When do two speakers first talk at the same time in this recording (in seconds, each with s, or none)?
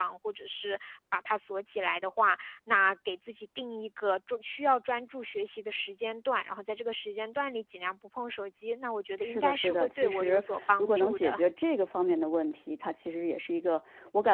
9.2 s